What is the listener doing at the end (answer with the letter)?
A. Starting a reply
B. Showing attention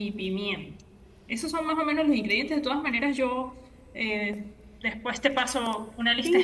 A